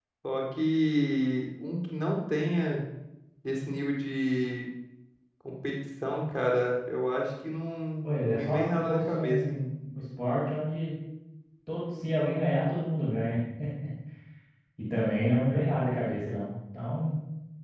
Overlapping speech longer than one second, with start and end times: 8.0-9.6

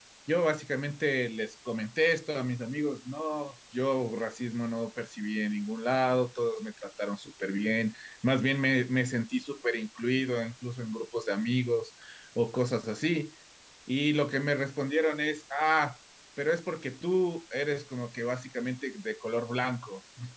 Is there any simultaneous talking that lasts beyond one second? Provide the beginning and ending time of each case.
none

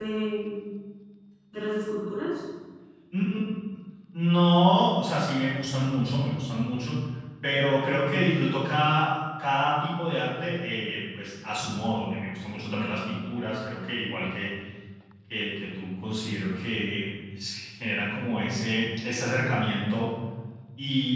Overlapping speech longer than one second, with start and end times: none

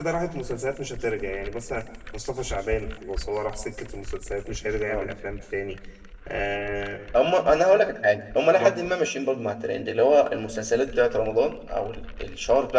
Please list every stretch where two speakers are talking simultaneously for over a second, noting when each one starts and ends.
none

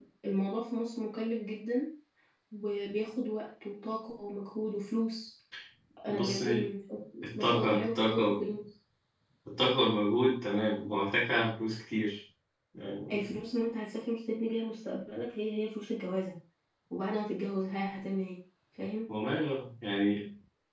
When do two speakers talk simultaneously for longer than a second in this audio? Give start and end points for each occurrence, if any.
7.2-8.5

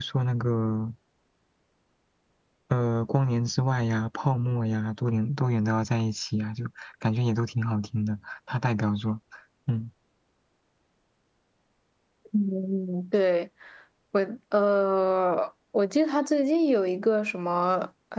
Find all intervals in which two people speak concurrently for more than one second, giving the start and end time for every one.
none

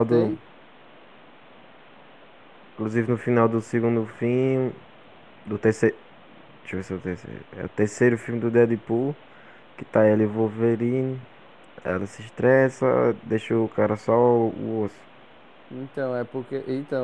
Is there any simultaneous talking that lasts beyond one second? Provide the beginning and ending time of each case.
none

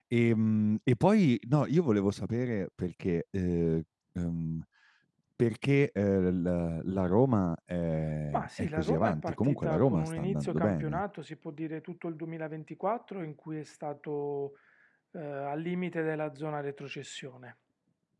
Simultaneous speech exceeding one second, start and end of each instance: 8.3-11.0

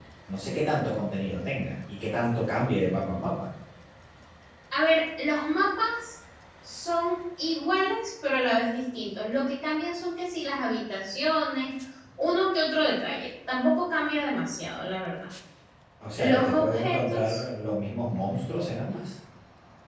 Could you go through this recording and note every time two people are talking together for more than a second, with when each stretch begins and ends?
16.1-17.4

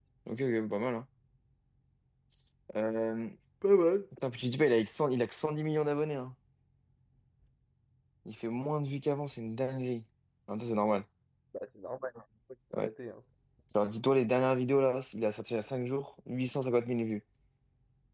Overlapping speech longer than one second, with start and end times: none

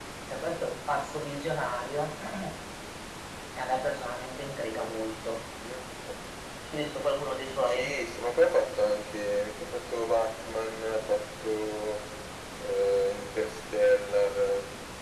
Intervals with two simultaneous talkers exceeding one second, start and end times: none

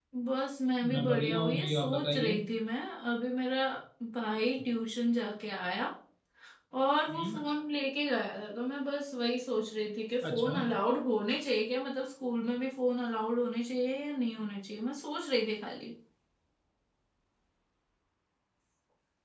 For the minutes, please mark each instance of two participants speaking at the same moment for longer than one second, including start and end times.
0.9-2.4

